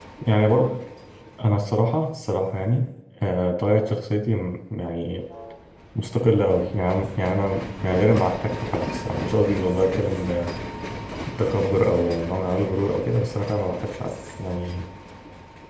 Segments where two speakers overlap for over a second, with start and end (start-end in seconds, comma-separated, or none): none